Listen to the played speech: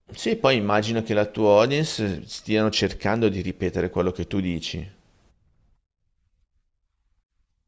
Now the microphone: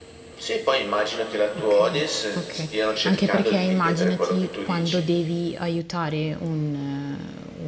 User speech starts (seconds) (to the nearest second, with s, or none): 2 s